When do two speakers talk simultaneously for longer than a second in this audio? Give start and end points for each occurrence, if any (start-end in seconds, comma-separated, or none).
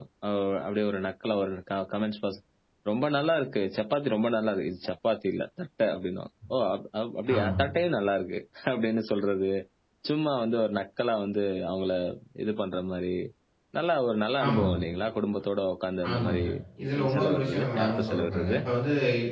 17.0-18.6